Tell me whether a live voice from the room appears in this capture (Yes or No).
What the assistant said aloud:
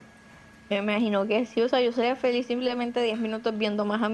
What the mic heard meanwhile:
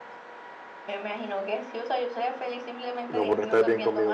Yes